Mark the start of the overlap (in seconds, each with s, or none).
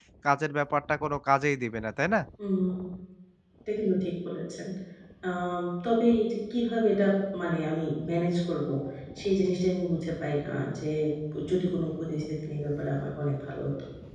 none